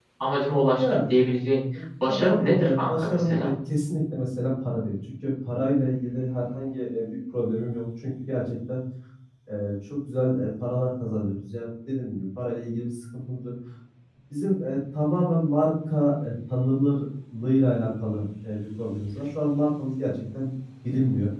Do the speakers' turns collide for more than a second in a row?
Yes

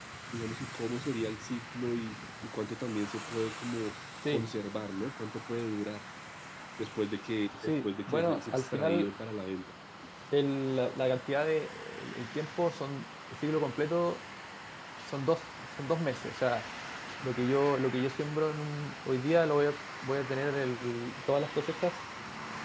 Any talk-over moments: Yes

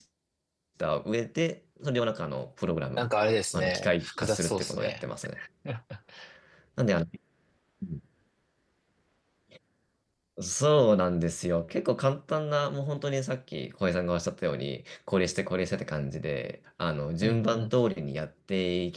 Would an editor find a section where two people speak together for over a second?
Yes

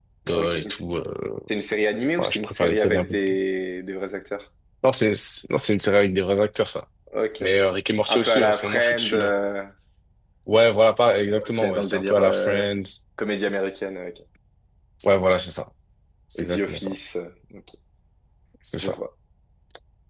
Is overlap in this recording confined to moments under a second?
No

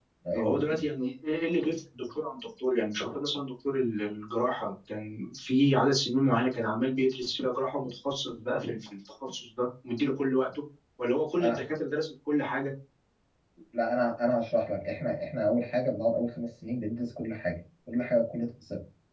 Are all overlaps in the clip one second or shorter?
Yes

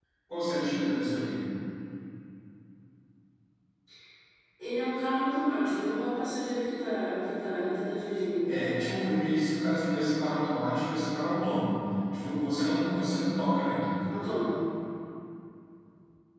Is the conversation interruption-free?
Yes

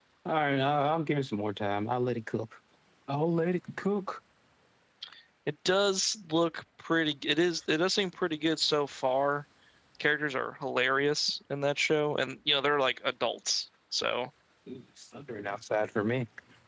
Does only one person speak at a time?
Yes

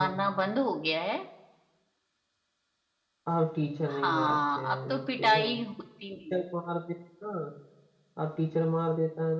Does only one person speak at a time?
No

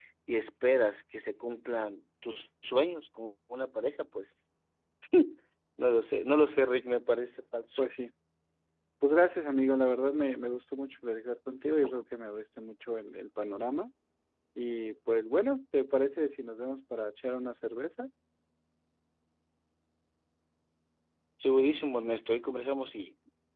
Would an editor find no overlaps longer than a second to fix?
Yes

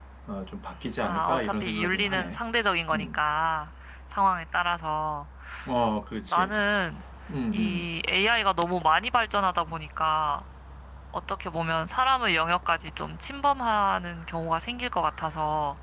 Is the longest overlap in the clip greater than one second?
Yes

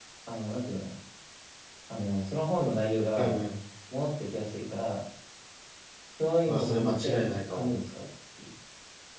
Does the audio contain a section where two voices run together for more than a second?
Yes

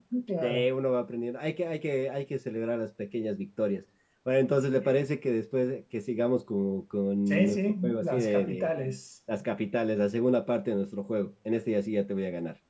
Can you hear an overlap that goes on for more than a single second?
Yes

